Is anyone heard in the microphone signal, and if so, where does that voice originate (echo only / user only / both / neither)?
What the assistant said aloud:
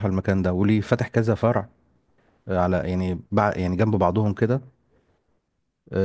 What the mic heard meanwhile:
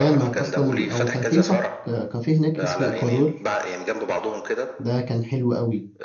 both